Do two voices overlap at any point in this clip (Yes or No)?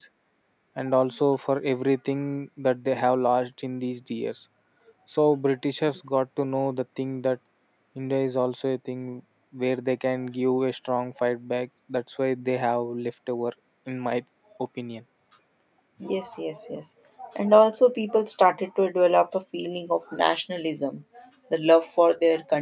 No